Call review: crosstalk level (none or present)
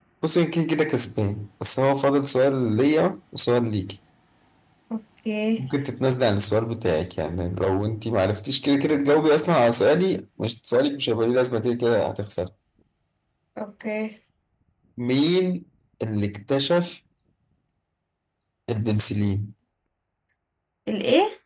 none